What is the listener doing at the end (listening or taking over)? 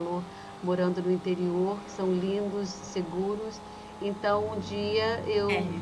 listening